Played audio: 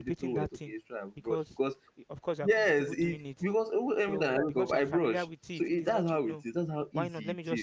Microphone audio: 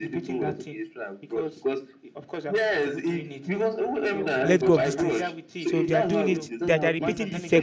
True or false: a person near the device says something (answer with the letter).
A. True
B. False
A